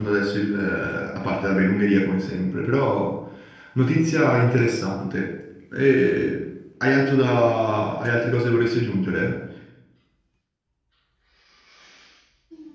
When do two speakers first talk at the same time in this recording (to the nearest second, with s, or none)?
none